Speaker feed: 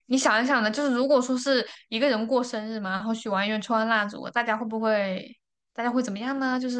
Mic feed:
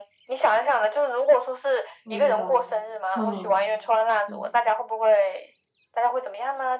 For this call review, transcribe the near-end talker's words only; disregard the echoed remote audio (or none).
不知道。嗯嗯，